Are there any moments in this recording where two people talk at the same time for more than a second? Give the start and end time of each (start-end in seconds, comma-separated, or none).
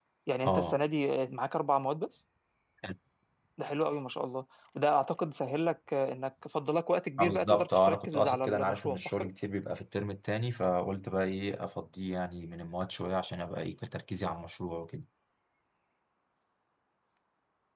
7.2-9.3